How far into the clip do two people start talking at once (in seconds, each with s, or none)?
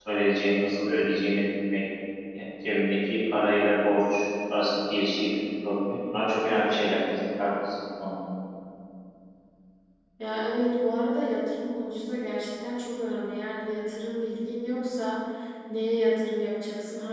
none